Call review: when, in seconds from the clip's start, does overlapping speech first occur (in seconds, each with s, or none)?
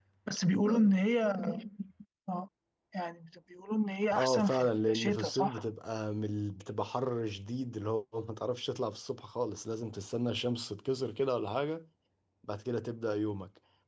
4.1 s